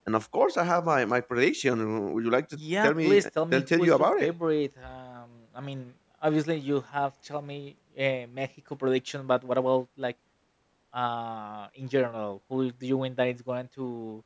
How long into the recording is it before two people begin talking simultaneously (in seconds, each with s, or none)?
2.8 s